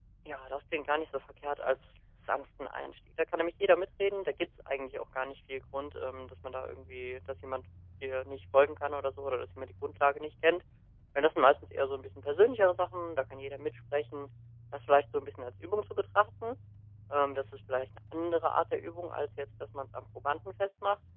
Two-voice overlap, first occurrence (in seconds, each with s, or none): none